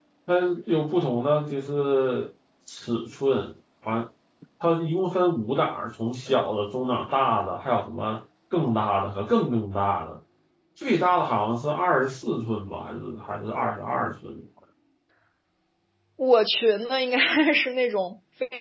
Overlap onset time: none

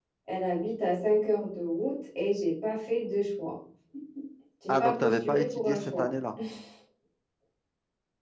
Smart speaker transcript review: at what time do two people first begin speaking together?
4.7 s

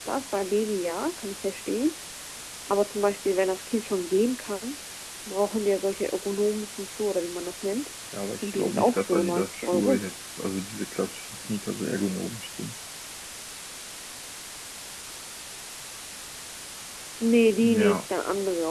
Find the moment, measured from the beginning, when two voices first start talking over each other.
8.4 s

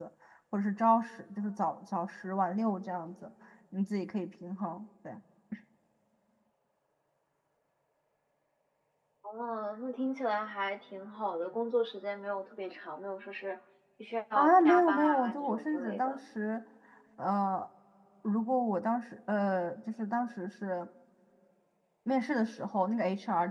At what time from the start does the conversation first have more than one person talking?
14.3 s

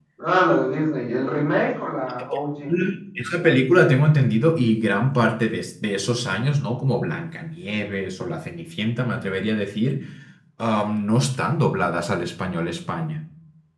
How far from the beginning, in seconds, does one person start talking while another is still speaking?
none

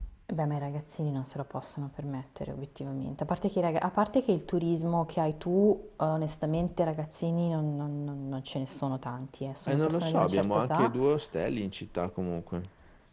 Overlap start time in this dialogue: 9.7 s

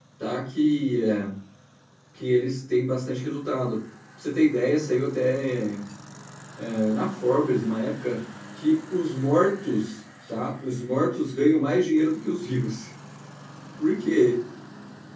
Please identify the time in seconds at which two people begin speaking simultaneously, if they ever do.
none

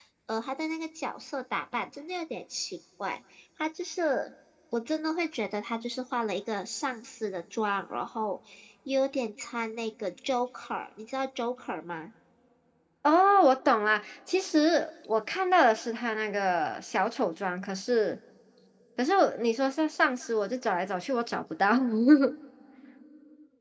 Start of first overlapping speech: none

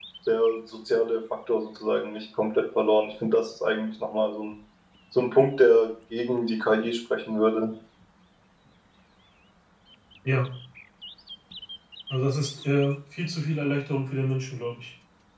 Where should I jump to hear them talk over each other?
none

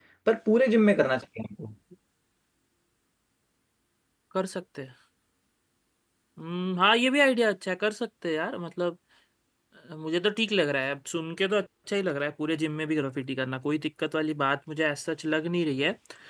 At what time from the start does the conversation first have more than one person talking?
none

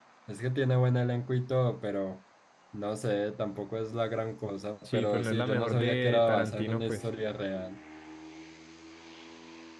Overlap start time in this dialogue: 4.8 s

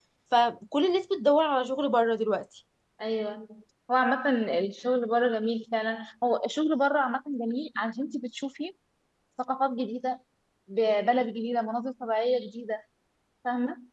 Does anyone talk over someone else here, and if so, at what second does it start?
none

